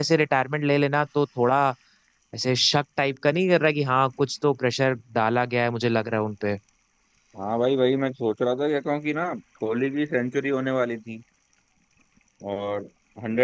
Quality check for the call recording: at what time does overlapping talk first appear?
none

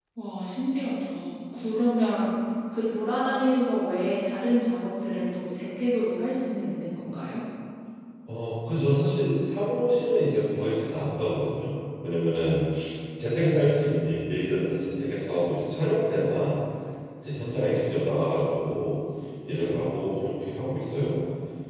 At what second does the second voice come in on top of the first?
none

